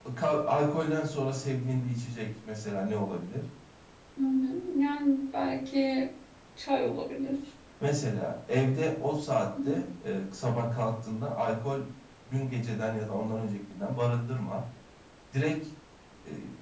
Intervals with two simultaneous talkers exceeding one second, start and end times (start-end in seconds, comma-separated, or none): none